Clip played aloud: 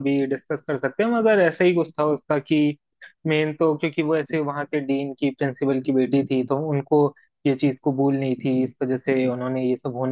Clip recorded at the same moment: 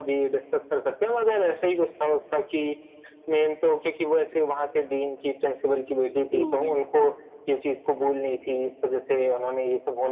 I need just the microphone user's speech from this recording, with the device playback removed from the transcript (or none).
मूवी